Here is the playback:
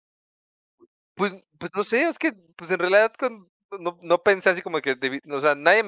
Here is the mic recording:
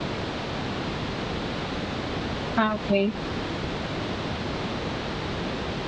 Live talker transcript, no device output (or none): Ah, okey.